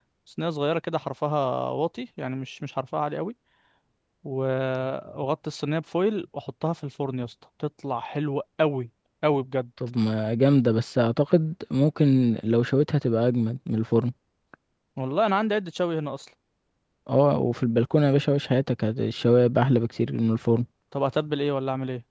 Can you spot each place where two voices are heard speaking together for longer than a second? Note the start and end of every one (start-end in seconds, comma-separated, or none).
none